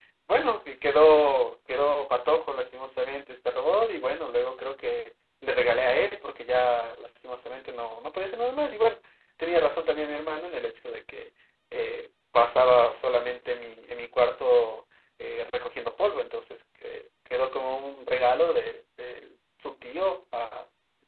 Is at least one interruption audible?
No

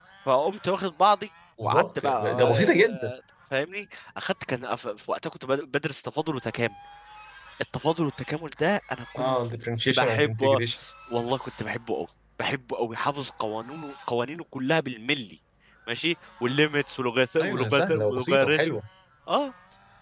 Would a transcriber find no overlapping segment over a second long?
No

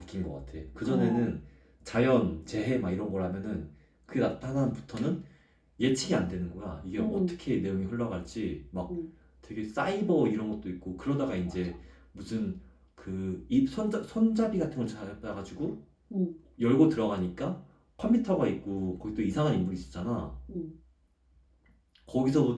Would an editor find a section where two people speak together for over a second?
No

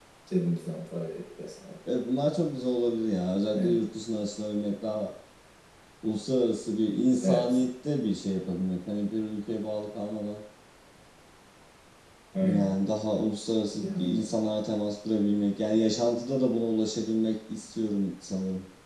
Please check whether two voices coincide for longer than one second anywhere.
No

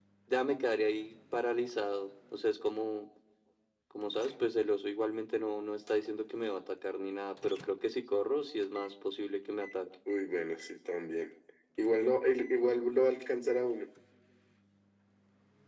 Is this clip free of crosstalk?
Yes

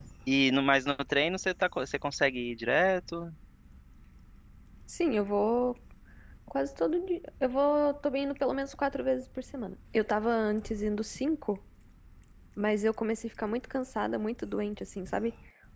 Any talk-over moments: No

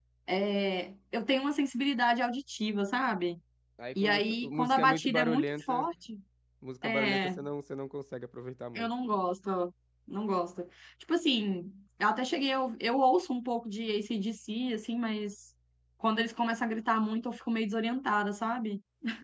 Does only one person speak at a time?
No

